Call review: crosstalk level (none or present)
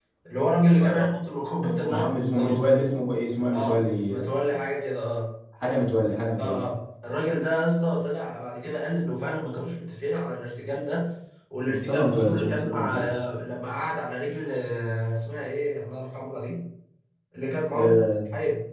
present